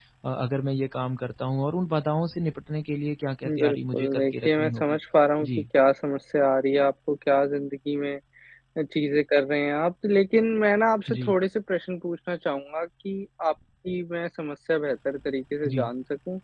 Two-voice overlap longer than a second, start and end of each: 3.5-5.0

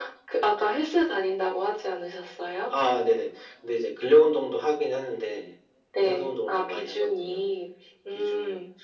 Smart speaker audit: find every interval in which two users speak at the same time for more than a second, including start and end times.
6.0-7.4

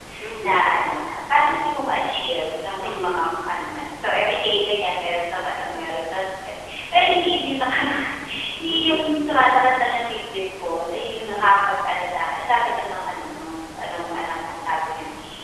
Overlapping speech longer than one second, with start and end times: none

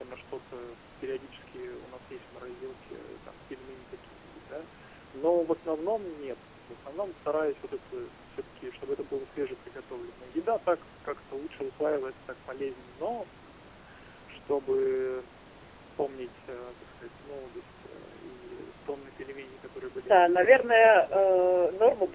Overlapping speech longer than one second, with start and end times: 20.0-21.3

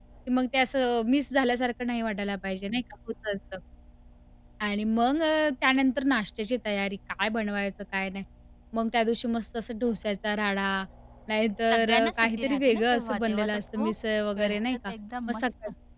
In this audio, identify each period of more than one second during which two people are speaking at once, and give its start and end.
11.6-13.9

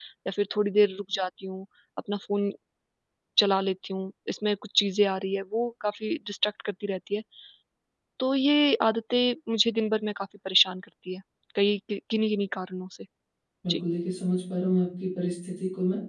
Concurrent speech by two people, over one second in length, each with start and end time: none

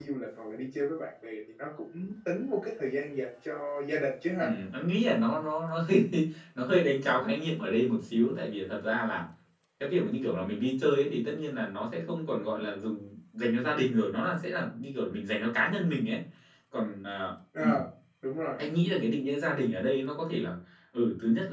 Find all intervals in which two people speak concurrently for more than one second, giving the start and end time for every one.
none

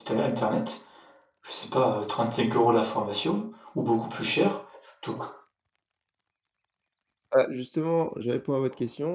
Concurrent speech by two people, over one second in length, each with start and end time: none

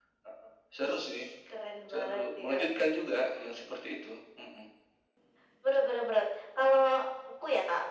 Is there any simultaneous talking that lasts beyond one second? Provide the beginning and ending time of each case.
1.9-3.5

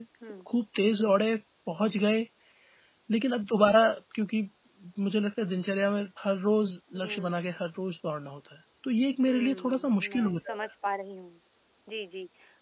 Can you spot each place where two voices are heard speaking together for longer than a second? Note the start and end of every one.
9.3-10.7

